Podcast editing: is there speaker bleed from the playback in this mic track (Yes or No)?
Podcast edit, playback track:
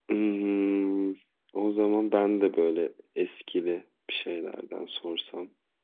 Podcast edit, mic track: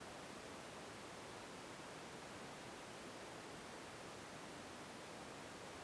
No